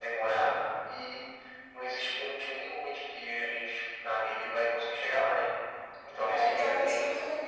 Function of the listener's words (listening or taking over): taking over